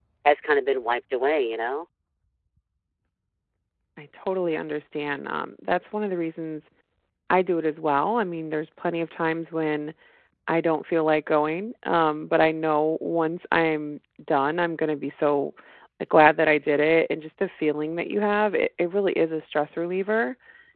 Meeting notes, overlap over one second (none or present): none